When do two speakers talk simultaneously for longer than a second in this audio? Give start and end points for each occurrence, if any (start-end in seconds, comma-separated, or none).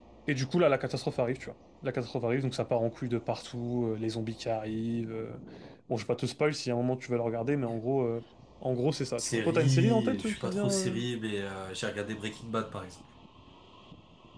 9.2-10.9